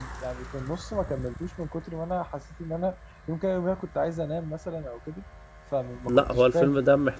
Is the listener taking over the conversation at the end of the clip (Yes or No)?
Yes